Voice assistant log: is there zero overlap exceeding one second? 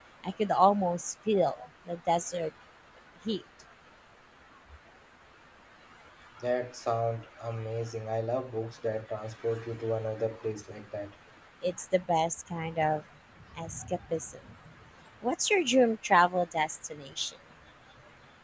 Yes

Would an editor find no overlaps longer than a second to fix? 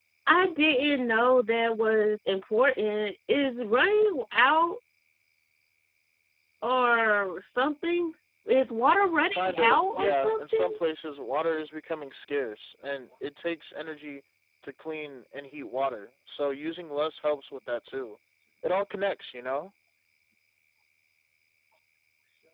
No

